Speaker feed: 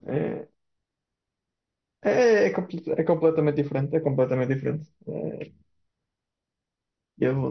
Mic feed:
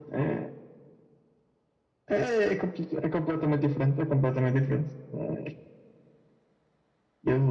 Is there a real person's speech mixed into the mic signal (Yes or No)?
No